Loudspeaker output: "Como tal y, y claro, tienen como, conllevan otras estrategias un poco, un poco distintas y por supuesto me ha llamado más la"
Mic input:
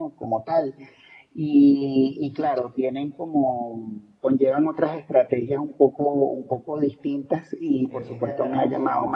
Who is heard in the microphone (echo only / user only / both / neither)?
both